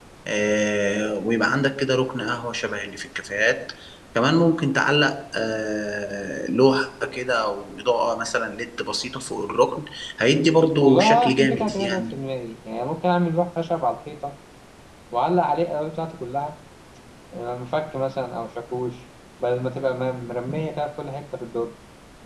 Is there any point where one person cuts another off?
Yes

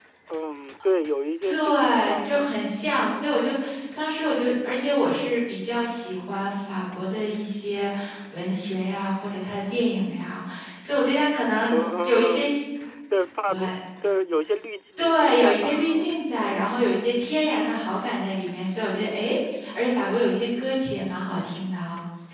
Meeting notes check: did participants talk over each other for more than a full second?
Yes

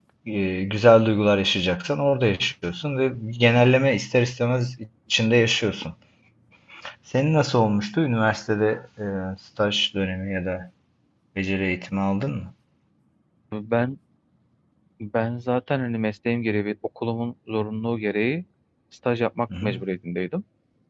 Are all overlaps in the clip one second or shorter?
Yes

